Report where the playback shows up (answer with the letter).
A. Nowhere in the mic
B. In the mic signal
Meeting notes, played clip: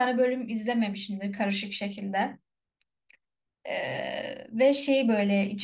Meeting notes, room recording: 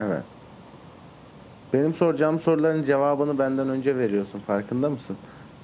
A